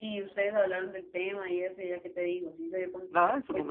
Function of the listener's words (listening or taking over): taking over